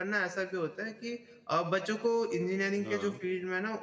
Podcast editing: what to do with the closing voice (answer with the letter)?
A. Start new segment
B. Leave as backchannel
B